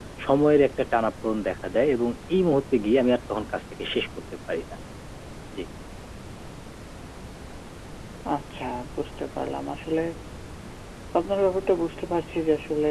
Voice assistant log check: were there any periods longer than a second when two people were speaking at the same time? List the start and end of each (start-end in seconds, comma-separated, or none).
none